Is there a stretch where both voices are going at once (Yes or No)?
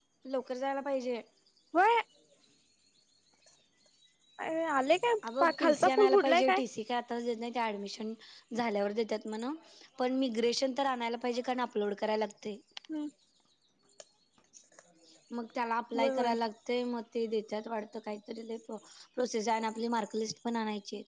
Yes